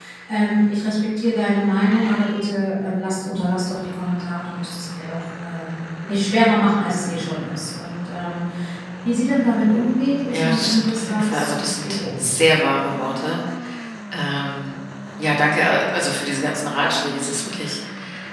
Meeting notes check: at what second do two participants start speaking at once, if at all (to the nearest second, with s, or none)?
10 s